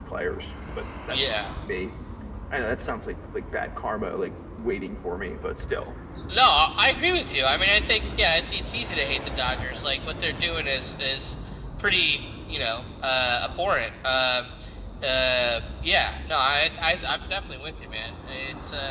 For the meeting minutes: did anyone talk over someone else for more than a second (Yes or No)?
No